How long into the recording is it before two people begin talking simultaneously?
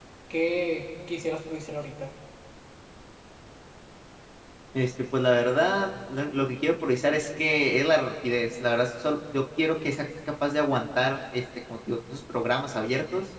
none

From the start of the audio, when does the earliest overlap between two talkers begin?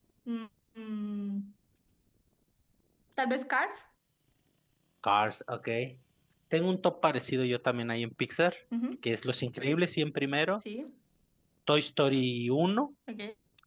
none

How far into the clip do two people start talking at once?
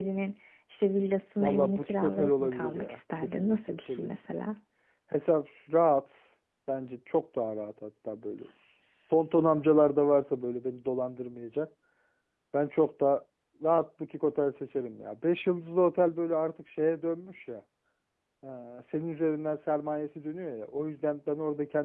1.4 s

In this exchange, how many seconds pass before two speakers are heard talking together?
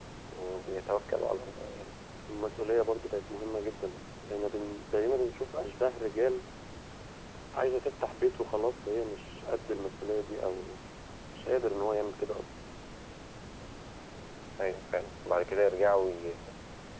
none

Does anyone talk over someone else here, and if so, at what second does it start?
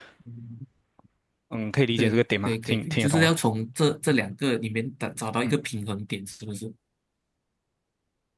2.0 s

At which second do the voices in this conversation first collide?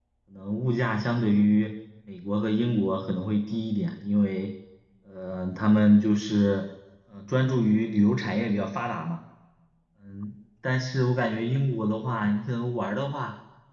none

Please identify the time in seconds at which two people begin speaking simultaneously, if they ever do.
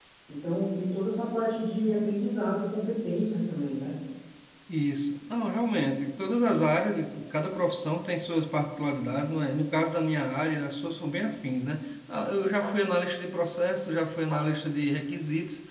none

